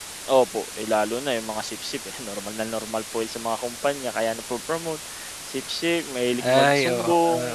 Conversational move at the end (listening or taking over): taking over